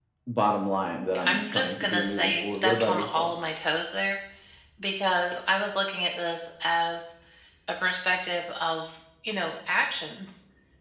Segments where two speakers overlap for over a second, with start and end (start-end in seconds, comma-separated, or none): 1.2-3.3